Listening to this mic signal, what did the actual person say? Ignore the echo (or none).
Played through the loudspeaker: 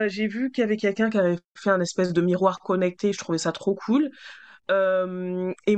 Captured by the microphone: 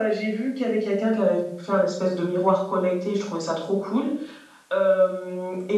none